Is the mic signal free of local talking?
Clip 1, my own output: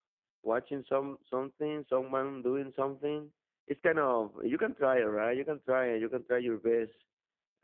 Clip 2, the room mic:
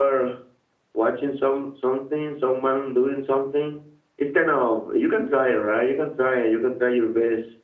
Yes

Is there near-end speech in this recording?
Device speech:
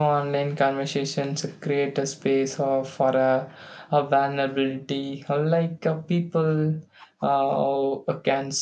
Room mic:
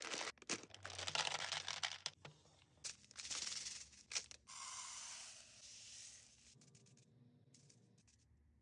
No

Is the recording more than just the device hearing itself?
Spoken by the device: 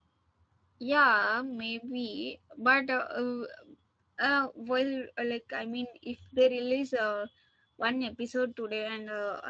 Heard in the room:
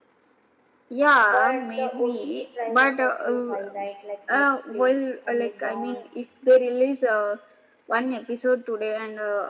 Yes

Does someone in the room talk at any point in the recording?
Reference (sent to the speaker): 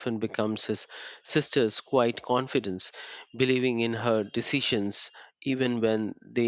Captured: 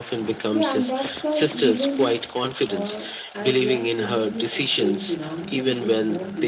Yes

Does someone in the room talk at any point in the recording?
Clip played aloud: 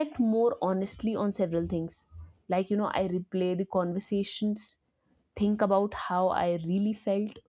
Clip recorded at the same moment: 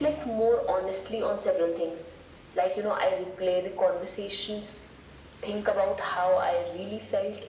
No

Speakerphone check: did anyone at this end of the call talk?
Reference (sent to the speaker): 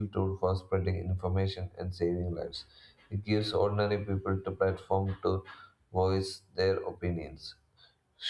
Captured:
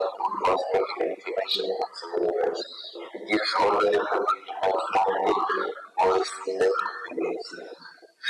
No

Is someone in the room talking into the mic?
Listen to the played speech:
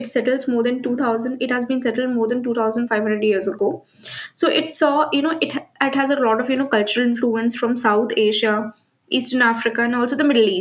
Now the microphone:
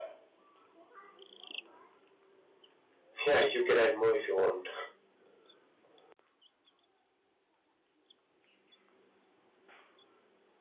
Yes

